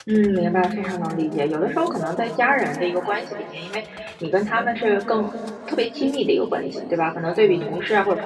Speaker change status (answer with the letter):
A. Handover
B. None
B